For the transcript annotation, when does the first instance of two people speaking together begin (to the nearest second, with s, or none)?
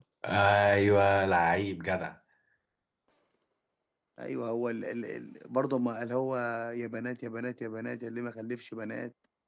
none